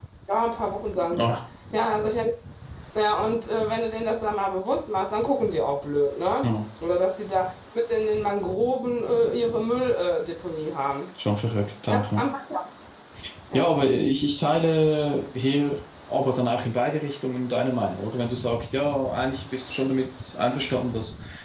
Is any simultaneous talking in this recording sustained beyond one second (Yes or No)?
No